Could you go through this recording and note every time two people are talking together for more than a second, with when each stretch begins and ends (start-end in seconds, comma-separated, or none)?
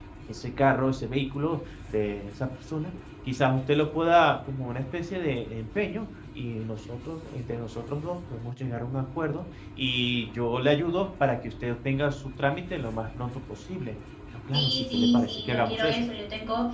14.5-16.1